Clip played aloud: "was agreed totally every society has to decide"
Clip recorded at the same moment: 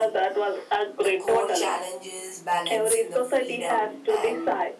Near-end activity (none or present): present